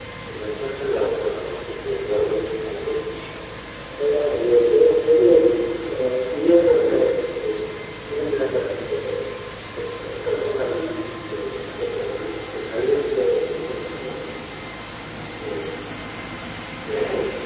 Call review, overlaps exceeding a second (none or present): none